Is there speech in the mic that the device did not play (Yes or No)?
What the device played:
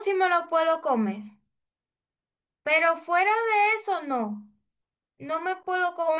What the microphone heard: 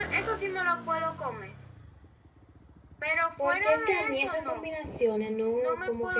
Yes